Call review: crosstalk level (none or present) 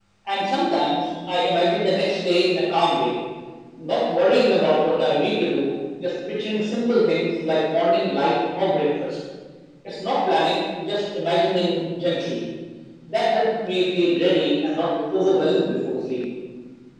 present